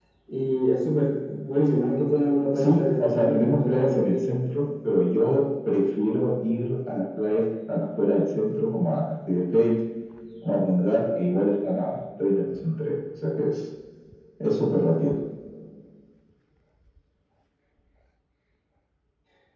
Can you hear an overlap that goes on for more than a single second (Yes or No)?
Yes